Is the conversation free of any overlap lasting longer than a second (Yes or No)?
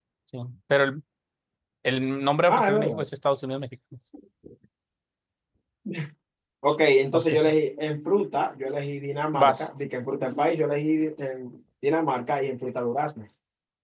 Yes